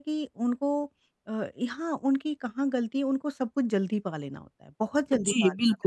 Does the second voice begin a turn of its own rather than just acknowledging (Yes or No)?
Yes